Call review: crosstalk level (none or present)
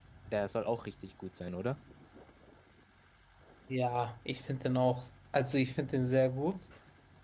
none